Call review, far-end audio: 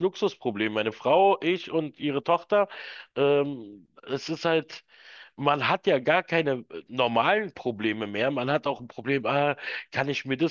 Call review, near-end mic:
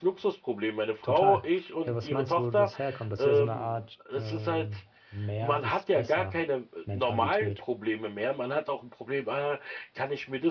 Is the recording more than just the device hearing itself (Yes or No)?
Yes